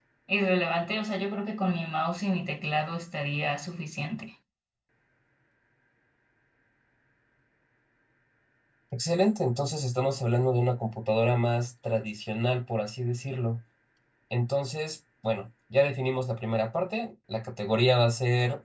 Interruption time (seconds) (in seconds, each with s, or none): none